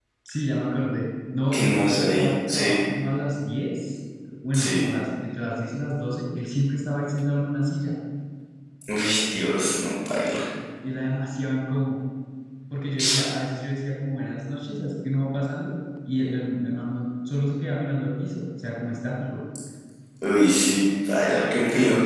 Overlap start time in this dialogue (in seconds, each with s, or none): 1.5 s